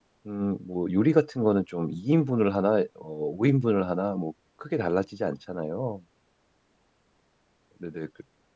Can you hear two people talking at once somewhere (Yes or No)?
No